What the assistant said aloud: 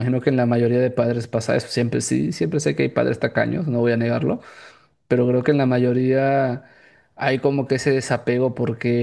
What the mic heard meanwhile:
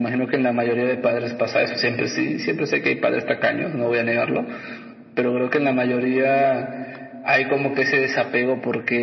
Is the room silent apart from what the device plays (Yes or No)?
Yes